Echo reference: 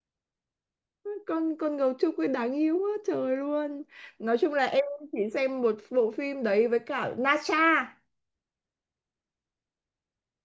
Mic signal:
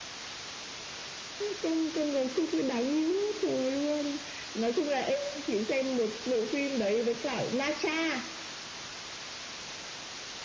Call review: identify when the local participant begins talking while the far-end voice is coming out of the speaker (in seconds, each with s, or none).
none